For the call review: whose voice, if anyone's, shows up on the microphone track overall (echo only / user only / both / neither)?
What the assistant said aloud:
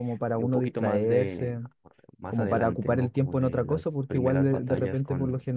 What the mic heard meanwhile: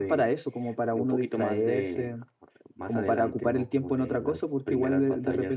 echo only